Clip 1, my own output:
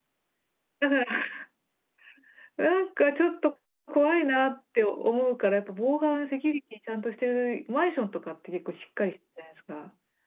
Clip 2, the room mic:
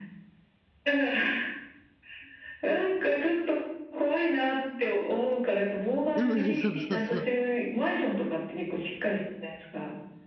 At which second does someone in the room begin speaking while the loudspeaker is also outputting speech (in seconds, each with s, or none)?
6.2 s